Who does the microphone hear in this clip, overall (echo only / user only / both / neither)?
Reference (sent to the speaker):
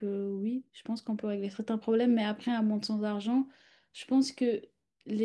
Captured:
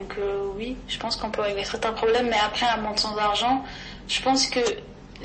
echo only